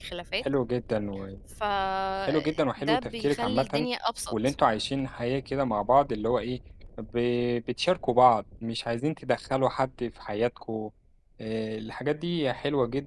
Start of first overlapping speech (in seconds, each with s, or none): 2.3 s